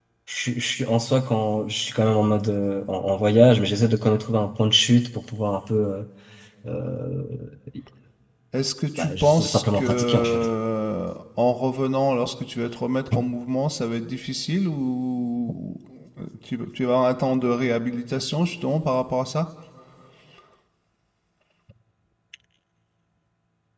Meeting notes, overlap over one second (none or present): present